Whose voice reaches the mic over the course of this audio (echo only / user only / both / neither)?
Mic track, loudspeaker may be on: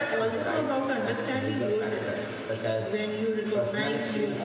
echo only